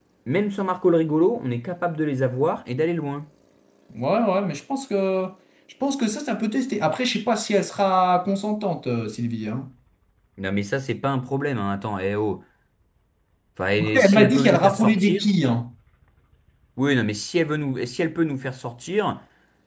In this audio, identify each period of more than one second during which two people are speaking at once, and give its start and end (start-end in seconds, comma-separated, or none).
13.8-15.3